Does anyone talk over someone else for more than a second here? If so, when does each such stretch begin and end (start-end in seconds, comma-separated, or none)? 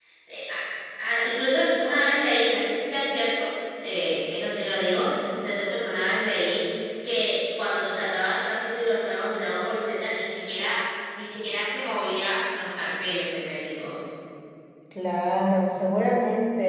none